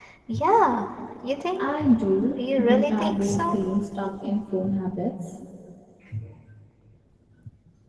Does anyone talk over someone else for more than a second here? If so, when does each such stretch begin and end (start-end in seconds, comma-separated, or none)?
2.3-3.6